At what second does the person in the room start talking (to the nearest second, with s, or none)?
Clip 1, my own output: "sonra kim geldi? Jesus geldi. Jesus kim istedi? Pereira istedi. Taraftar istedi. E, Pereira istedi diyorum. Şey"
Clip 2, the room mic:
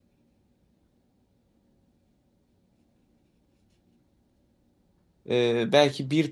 5 s